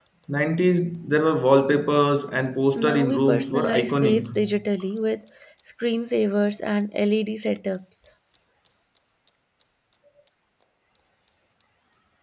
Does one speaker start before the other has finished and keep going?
Yes, from 2.7 s

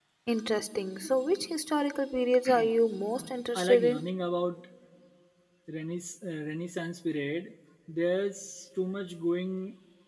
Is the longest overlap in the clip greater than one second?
No

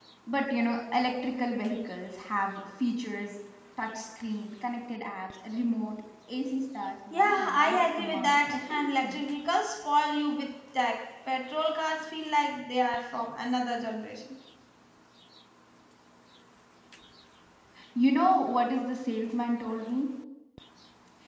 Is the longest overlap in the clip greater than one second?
Yes, from 7.1 s

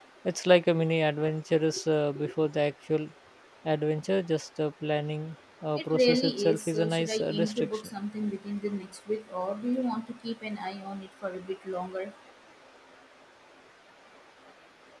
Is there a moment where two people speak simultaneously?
Yes, from 5.8 s

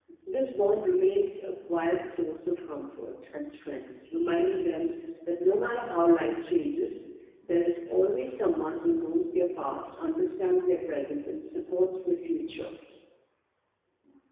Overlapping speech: No

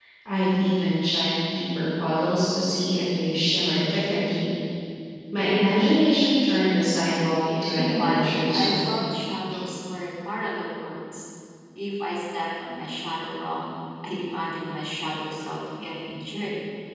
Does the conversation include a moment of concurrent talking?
Yes, from 7.7 s

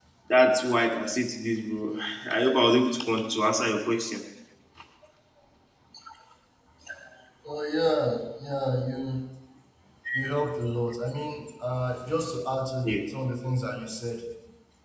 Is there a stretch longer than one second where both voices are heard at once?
No

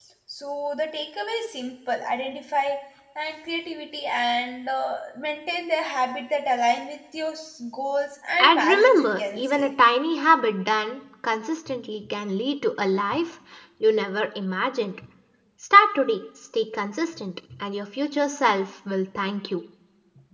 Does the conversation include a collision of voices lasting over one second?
Yes, from 8.4 s

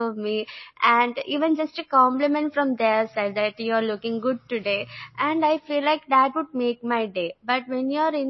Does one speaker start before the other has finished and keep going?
No

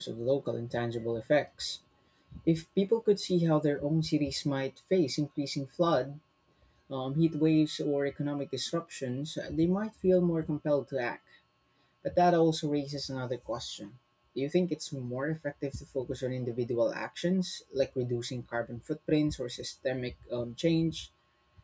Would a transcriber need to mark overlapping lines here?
No

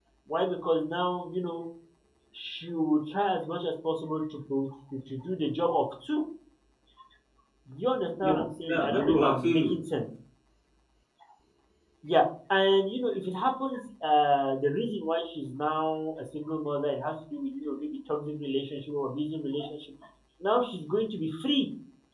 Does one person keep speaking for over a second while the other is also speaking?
Yes, from 8.2 s

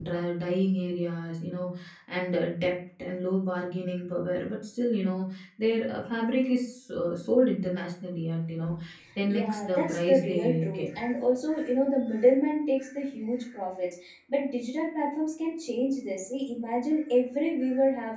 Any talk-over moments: Yes, from 9.3 s

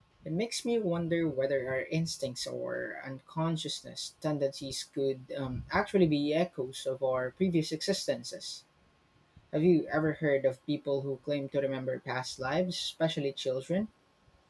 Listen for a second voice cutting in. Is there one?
No

